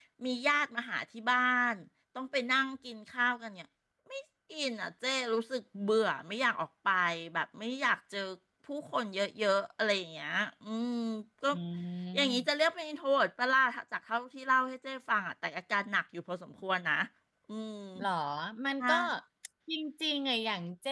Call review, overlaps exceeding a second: none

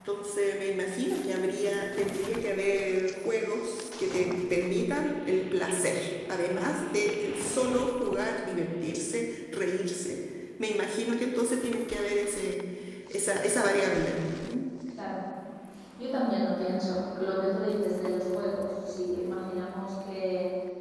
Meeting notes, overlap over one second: none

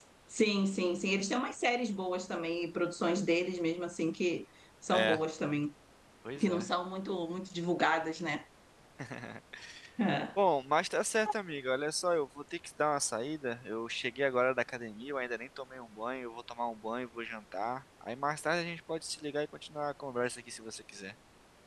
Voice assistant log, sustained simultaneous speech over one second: none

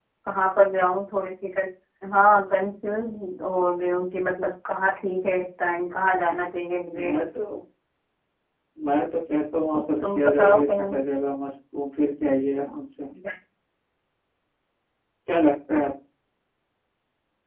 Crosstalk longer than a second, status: present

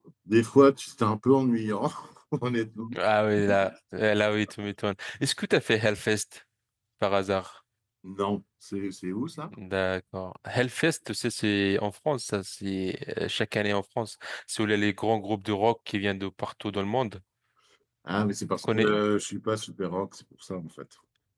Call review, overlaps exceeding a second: none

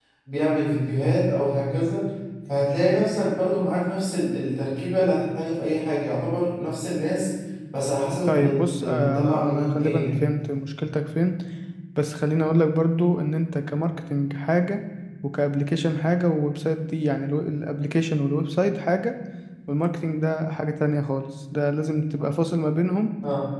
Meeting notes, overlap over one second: present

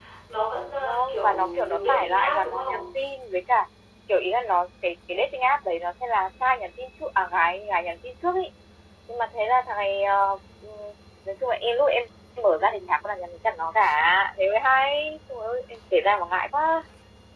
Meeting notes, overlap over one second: present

